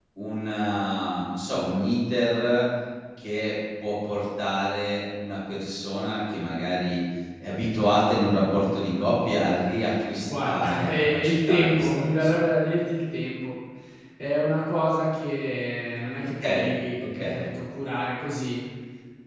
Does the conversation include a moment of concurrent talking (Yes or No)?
Yes